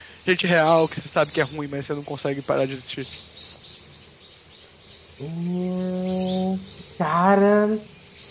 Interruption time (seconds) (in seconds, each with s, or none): none